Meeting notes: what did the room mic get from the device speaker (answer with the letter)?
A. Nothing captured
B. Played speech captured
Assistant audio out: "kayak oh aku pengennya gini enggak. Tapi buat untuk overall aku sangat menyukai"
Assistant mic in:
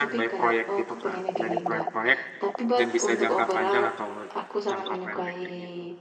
B